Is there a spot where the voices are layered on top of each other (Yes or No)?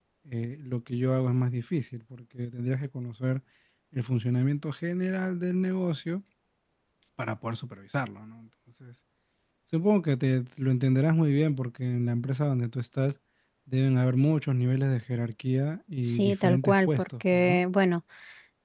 Yes